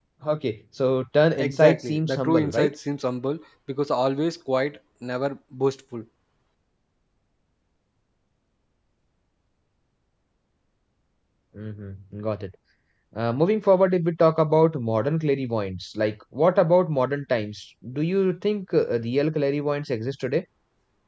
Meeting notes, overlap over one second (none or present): present